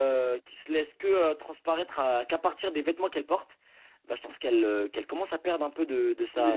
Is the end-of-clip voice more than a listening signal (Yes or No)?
Yes